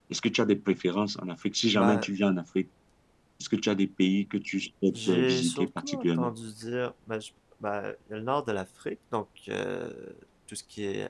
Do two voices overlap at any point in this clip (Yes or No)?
Yes